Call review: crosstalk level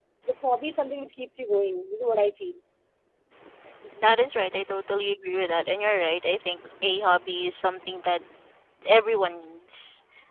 none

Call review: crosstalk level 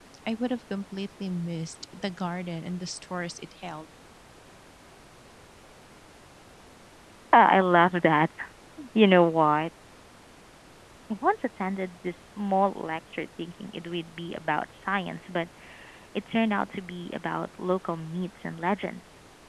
none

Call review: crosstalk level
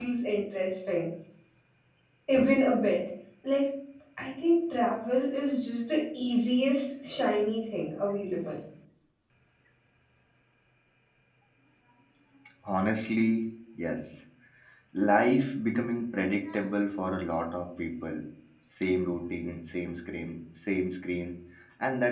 none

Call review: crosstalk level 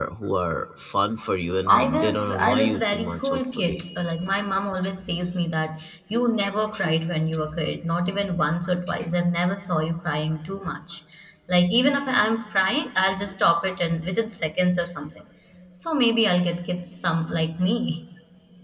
present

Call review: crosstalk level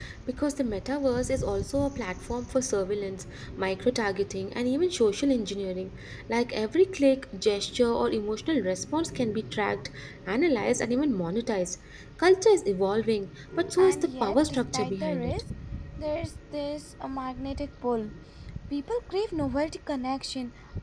present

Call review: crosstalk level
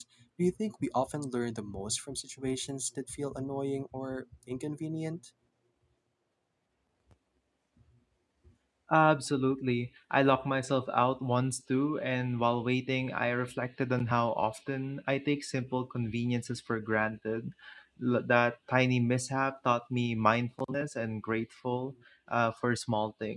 none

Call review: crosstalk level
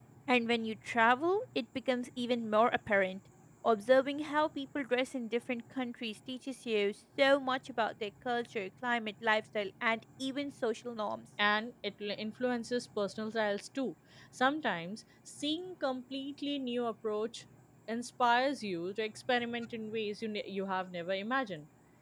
none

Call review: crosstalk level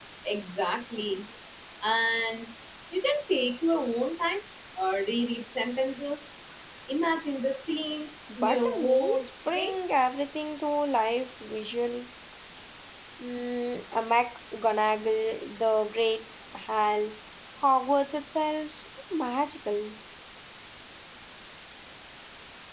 present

